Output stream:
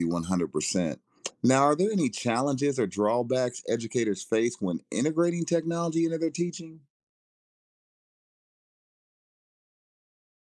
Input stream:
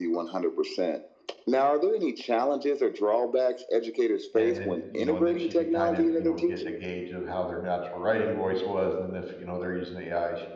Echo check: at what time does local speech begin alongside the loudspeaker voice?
4.3 s

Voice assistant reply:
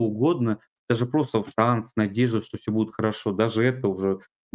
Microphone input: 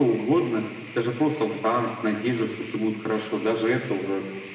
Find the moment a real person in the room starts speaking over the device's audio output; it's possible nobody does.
none

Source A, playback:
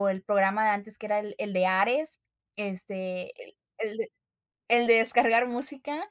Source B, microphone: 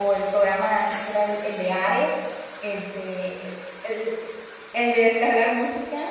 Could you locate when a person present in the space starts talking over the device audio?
none

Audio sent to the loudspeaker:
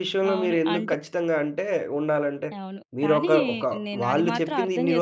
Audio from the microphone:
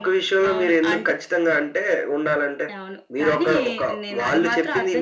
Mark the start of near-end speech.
none

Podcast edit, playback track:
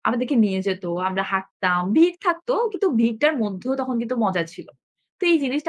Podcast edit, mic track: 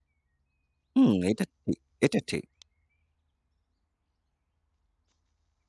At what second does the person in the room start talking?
0.9 s

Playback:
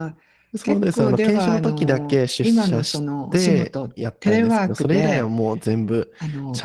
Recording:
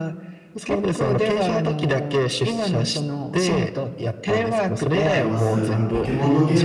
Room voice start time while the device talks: 5.1 s

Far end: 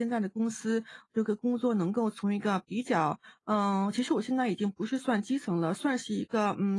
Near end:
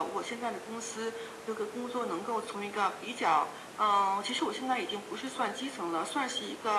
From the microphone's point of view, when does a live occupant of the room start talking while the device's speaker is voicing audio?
none

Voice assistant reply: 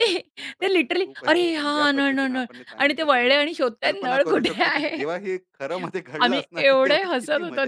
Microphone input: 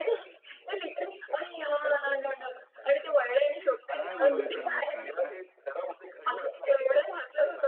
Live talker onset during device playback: 3.6 s

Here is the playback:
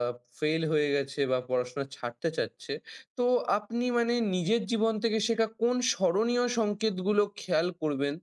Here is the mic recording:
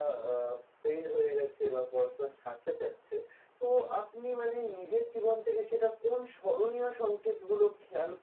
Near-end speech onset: none

